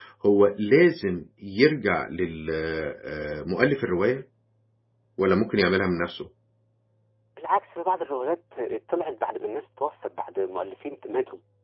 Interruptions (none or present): none